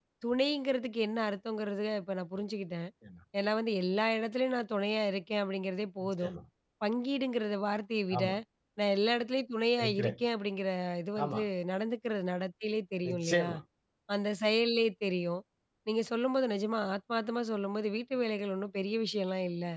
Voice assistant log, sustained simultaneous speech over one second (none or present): none